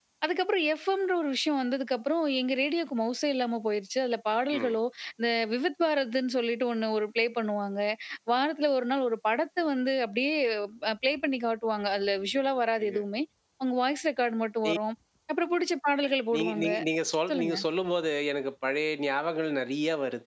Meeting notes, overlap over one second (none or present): none